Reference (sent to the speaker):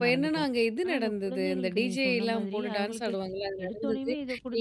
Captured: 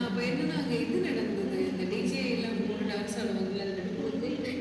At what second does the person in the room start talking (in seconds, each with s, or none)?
none